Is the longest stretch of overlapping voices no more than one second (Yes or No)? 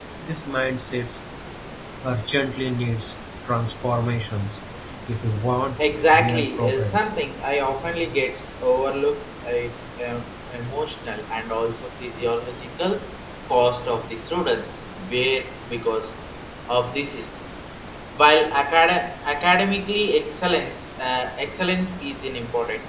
No